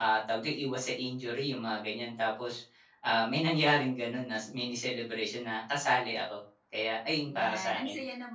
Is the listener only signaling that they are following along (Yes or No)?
No